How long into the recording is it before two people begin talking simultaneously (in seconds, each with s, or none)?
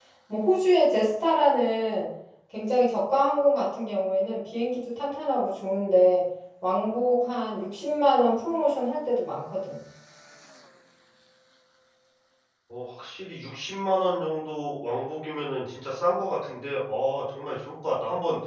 none